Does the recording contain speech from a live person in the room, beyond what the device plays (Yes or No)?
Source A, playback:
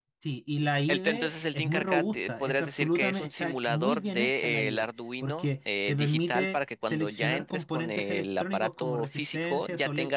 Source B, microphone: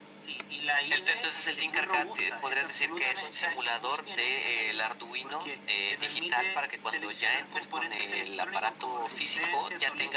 No